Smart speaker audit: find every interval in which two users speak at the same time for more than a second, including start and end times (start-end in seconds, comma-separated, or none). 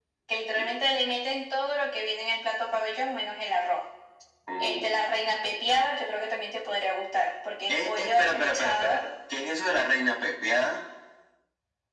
7.7-9.0